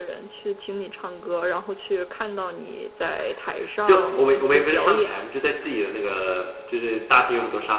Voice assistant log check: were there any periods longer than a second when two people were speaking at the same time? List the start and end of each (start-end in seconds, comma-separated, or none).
3.9-5.1